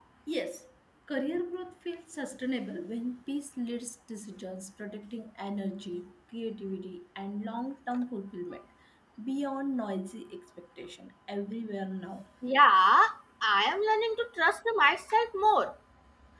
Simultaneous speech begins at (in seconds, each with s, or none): none